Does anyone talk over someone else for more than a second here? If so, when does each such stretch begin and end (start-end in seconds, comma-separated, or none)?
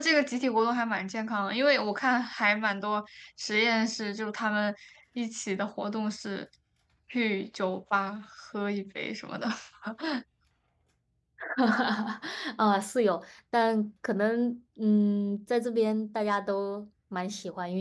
none